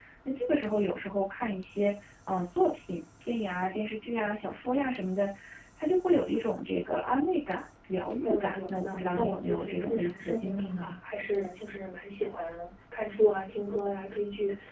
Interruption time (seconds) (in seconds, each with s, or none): 8.2 s